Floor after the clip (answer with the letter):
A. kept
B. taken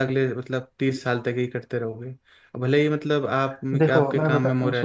B